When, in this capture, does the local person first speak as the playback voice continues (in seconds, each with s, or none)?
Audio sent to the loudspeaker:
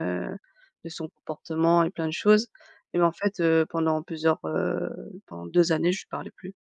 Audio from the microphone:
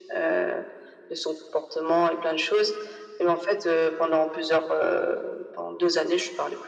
none